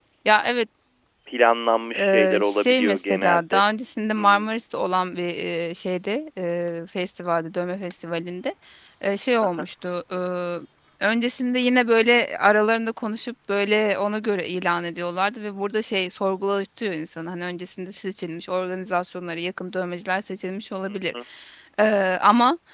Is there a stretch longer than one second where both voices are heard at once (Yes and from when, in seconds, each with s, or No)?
Yes, from 2.0 s